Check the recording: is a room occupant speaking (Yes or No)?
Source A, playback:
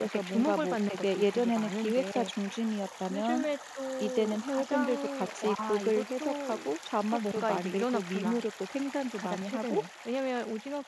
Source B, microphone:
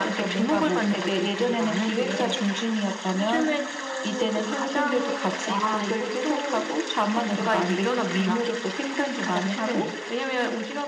No